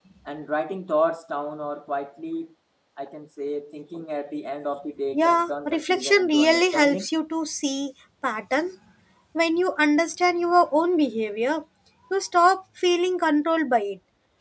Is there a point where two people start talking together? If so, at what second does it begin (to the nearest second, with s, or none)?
5 s